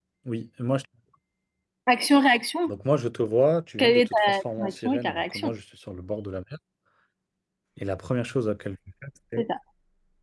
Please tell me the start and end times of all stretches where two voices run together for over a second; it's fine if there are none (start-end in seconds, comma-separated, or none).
3.8-5.5